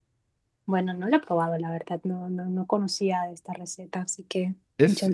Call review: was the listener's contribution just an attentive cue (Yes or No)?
No